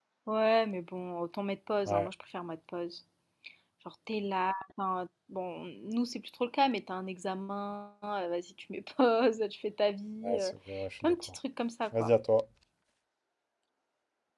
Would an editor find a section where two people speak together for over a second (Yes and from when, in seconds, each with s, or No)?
No